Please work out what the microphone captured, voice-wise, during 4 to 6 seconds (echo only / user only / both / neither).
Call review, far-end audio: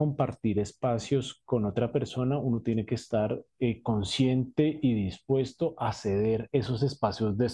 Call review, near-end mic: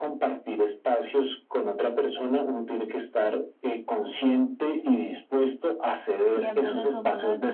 echo only